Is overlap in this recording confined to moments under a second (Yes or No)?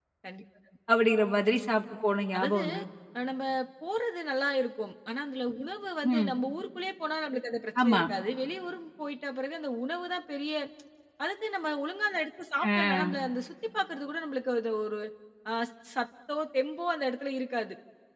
Yes